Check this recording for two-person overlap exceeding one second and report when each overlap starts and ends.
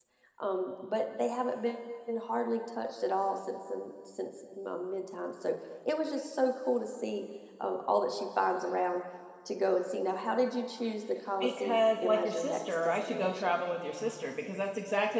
11.4-13.6

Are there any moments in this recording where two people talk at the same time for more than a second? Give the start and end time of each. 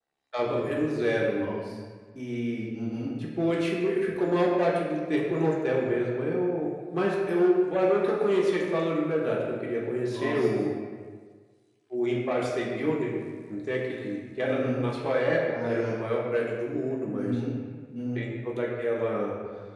none

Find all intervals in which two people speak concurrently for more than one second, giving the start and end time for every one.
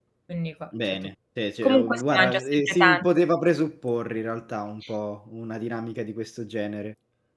1.6-3.0

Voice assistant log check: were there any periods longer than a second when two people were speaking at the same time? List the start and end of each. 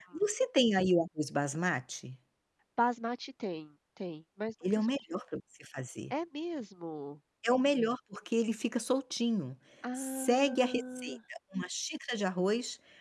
9.9-11.2

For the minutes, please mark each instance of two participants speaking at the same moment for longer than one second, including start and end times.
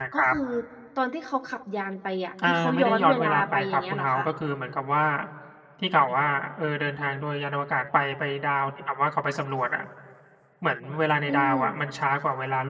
2.4-4.2

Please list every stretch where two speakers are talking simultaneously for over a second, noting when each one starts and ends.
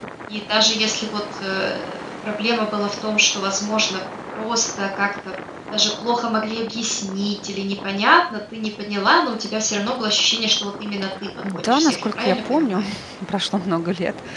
11.5-12.8

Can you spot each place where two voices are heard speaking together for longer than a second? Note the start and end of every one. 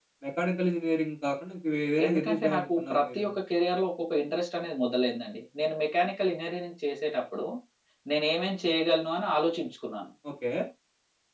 2.0-3.3

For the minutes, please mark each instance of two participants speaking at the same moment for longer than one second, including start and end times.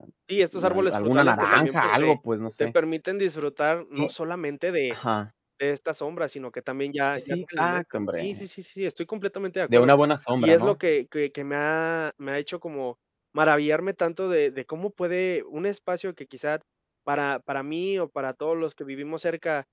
0.7-2.2, 7.2-8.4

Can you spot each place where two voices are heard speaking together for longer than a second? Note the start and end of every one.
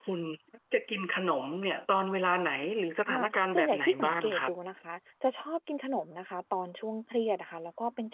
3.1-4.5

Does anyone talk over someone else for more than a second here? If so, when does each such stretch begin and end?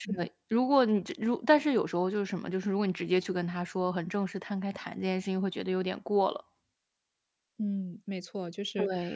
none

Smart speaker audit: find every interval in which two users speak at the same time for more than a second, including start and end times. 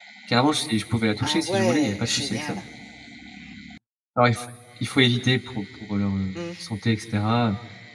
1.2-2.6

